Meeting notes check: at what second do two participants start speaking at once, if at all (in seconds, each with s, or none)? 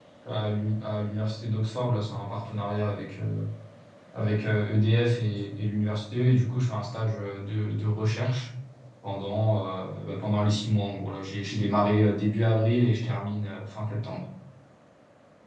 none